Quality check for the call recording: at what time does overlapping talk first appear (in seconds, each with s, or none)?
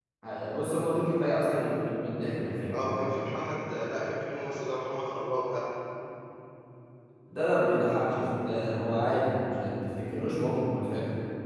none